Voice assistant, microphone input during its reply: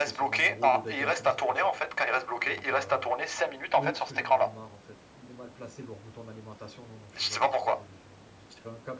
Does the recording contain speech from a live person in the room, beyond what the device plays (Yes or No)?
Yes